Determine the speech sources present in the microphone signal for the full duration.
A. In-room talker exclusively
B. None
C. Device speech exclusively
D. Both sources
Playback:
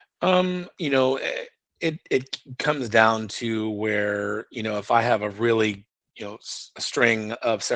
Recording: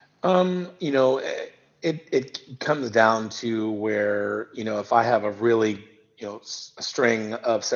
C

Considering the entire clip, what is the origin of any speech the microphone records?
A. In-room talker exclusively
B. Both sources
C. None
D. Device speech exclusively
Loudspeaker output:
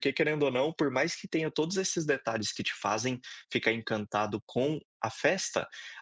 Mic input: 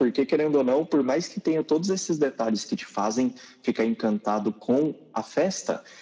D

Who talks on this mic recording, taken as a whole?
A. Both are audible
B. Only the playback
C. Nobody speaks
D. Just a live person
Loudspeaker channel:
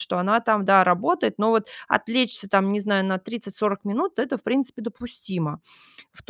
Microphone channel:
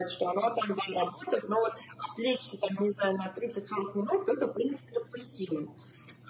B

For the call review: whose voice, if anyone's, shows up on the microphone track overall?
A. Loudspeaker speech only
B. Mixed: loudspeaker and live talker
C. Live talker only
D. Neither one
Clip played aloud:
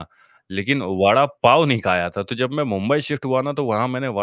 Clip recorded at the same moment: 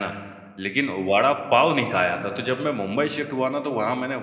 A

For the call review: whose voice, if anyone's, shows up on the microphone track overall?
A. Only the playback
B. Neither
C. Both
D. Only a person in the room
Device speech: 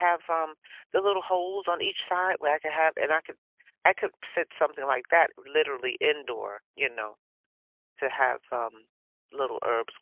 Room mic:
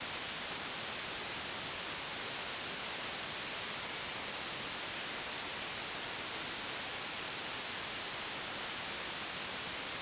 B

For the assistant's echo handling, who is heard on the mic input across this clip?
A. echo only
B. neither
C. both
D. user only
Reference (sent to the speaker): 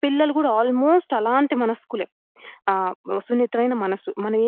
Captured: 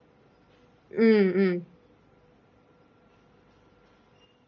D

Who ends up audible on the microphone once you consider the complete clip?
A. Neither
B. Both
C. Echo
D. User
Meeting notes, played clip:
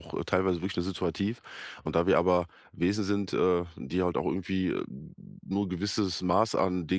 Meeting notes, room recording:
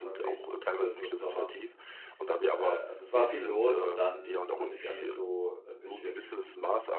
B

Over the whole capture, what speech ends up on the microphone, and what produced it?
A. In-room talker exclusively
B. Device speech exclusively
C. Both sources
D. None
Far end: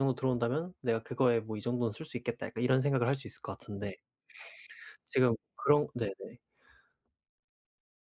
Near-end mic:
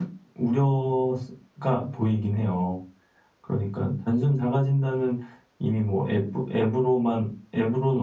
A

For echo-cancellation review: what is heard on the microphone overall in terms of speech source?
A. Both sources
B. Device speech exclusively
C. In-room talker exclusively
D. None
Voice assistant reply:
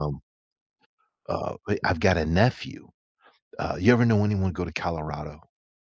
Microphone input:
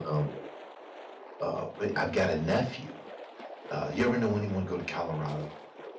B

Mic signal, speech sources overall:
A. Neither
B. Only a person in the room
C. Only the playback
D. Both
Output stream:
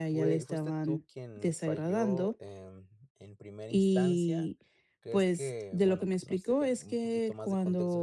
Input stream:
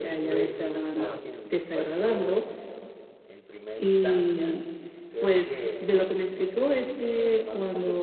D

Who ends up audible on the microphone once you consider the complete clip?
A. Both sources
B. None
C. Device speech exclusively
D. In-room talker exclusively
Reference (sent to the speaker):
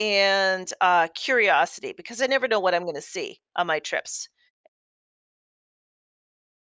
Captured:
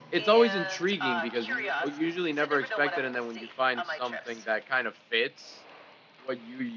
A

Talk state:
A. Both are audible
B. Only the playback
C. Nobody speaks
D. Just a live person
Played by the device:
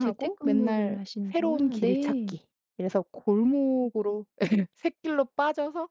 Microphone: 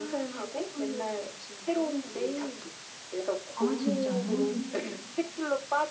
A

